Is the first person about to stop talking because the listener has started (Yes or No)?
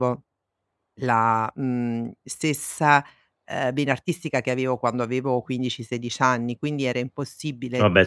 No